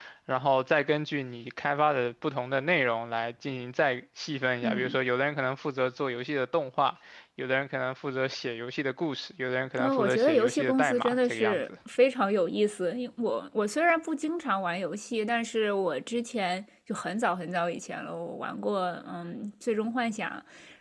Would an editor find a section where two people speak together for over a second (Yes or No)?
Yes